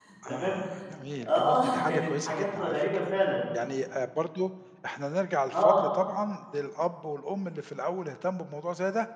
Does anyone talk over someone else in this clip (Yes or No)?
Yes